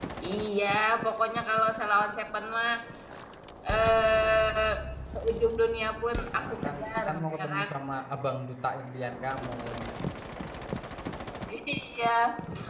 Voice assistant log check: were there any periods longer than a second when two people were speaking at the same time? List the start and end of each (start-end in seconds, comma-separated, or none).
6.3-7.7